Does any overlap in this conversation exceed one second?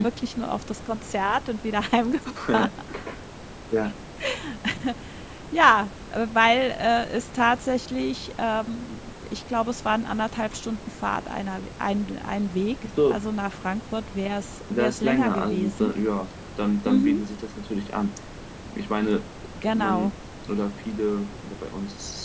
Yes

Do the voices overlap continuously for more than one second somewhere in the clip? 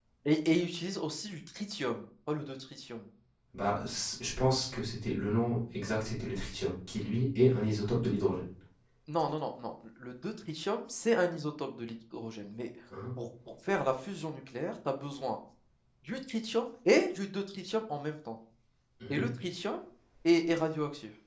No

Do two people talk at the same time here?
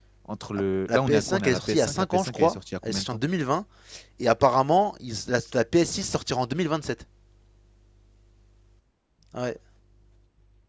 Yes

